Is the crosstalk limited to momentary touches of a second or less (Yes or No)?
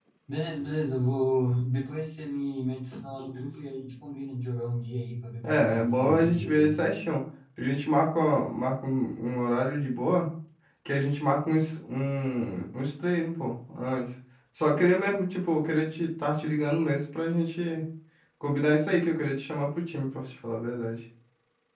No